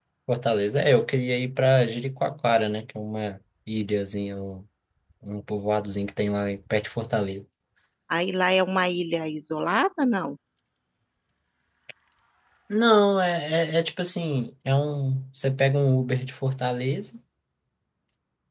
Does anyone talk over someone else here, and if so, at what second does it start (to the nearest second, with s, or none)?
none